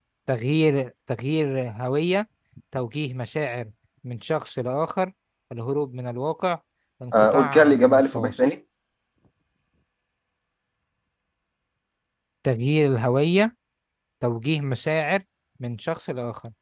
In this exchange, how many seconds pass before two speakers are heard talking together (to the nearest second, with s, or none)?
7 s